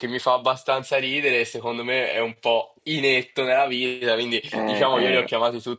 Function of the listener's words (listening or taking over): listening